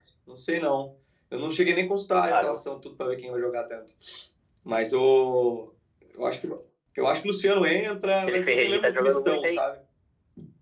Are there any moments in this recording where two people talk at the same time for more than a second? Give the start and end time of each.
8.3-9.6

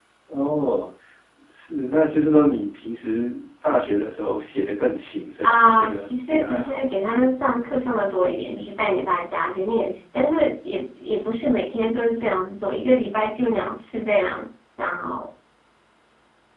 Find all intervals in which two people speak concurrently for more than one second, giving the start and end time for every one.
5.4-6.8

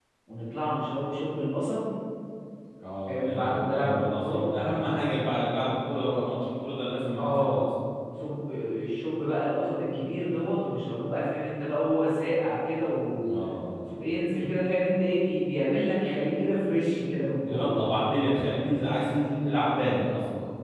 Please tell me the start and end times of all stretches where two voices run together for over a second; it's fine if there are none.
3.1-4.4

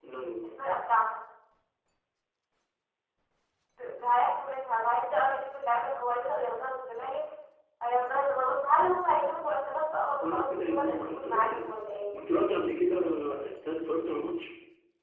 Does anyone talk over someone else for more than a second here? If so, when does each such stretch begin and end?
10.2-11.7

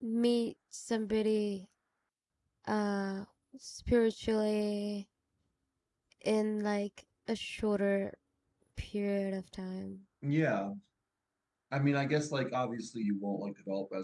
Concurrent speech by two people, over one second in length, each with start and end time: none

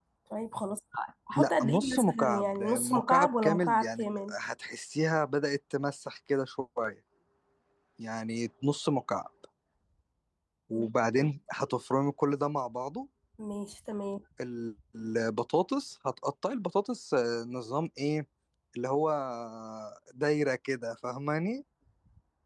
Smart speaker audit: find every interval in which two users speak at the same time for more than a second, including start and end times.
1.4-4.3

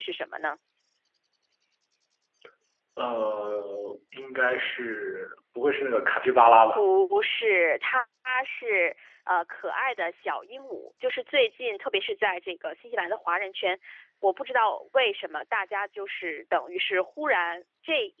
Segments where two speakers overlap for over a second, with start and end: none

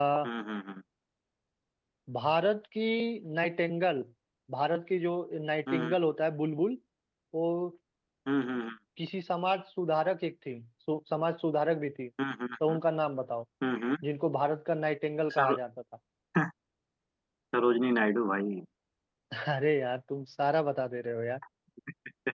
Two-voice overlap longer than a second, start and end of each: none

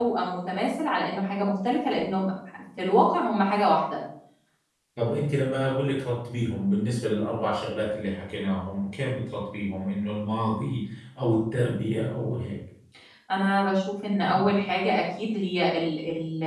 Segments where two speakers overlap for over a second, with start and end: none

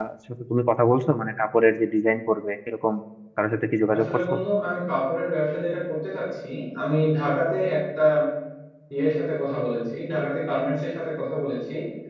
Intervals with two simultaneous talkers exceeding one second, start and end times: none

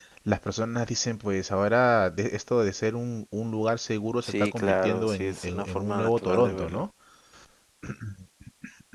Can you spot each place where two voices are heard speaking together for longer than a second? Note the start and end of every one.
4.2-6.8

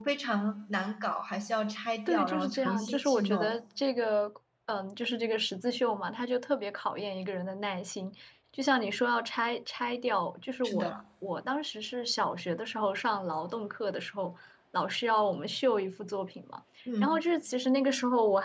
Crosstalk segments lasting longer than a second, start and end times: 2.1-3.6

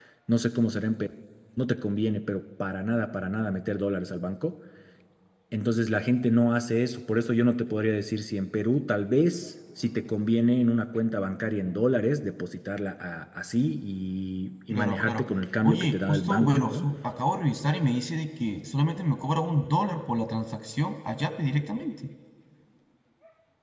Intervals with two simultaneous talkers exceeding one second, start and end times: 15.6-16.9

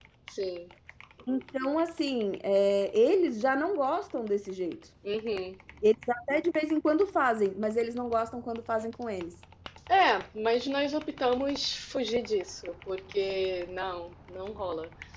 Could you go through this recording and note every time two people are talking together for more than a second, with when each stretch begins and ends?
none

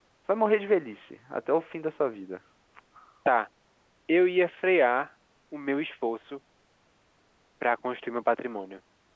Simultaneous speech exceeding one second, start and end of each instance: none

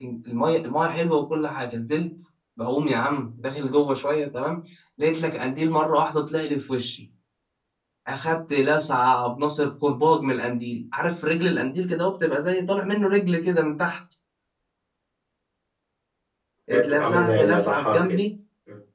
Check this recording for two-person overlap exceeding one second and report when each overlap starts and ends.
16.7-18.2

